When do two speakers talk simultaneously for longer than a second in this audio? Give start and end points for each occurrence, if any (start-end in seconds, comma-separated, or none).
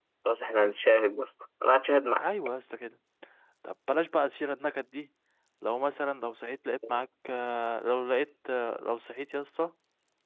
none